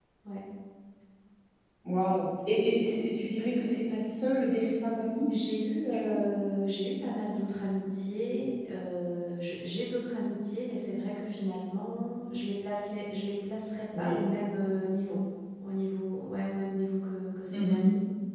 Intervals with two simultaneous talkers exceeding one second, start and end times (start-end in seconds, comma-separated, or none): none